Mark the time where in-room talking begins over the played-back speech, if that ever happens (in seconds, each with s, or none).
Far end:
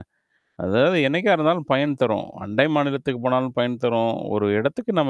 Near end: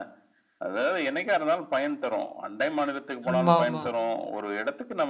3.3 s